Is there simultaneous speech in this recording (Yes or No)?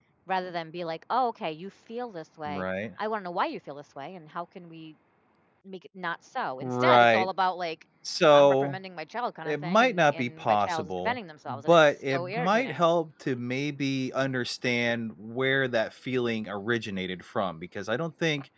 Yes